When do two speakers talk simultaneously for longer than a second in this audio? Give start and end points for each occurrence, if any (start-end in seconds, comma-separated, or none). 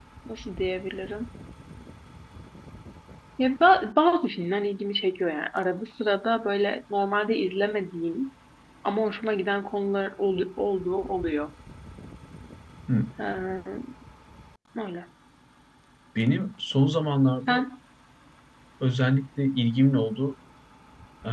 none